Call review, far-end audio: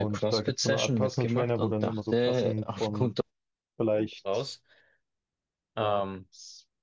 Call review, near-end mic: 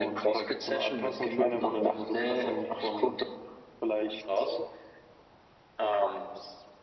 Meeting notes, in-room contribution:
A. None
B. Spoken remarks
A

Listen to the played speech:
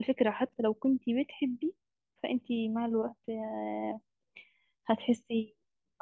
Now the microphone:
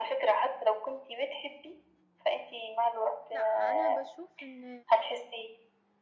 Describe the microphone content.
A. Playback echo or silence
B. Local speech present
B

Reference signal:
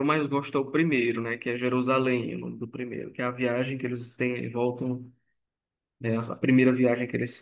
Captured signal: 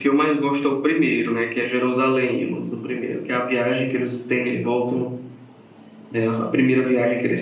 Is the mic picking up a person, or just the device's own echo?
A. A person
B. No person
B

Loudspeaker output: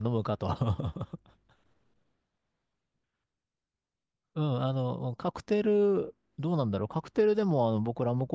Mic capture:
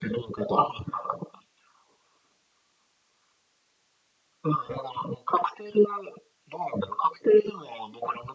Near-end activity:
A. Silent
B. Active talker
A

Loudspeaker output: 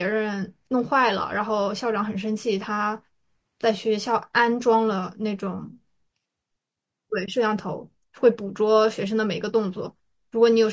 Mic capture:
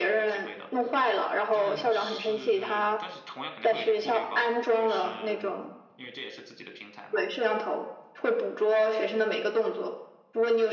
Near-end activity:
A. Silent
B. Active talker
B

